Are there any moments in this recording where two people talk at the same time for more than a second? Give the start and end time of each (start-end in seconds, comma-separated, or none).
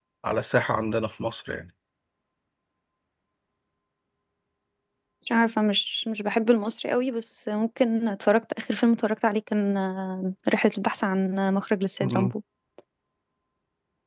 none